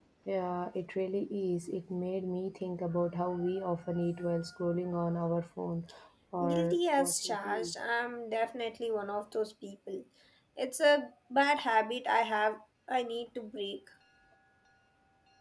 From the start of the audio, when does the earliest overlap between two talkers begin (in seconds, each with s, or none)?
6.4 s